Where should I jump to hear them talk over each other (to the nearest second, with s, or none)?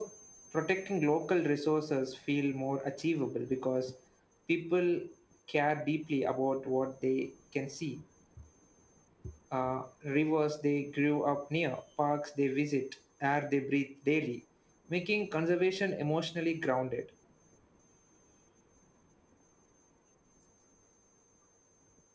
none